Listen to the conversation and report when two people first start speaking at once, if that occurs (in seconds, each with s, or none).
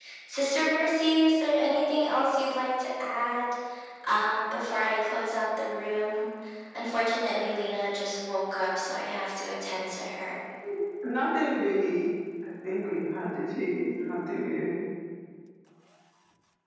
none